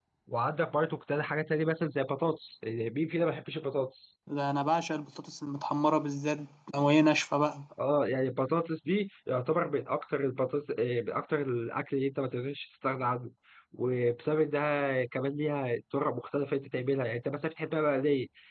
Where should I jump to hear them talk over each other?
none

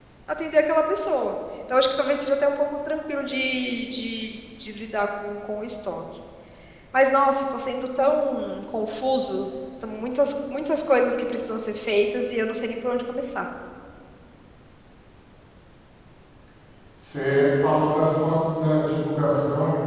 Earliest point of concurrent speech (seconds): none

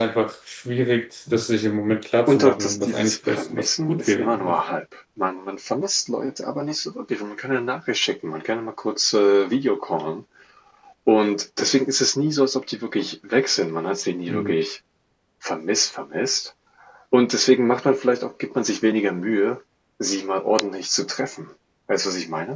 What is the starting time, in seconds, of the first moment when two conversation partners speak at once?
2.3 s

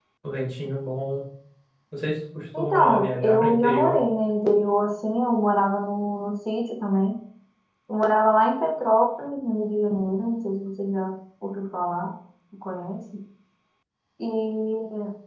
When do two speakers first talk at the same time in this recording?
2.6 s

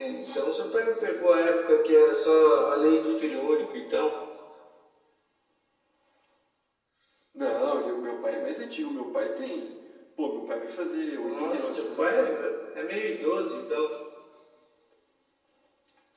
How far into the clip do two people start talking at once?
11.2 s

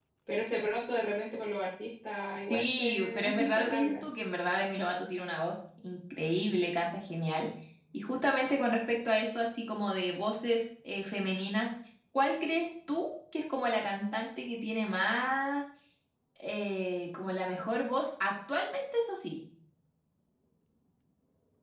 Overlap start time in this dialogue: 2.5 s

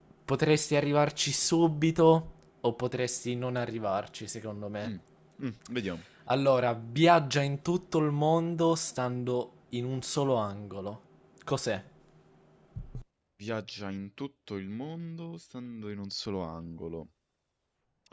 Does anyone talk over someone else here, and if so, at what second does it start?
none

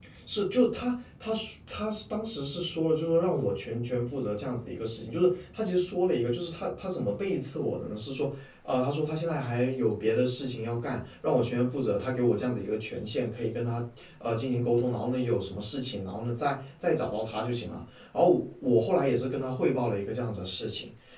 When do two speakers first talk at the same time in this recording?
none

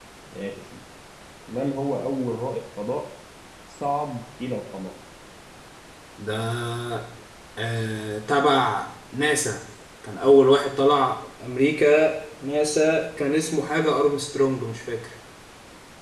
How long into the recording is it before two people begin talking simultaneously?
none

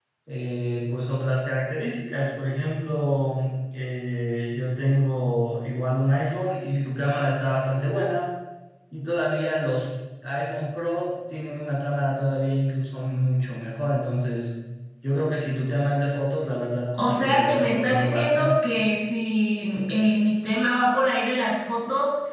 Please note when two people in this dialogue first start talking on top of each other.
16.9 s

